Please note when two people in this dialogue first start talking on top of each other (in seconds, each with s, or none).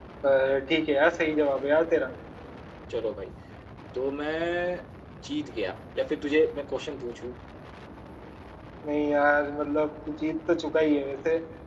none